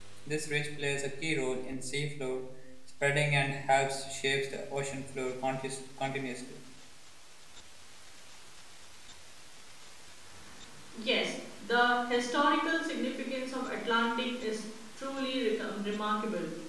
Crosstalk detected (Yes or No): No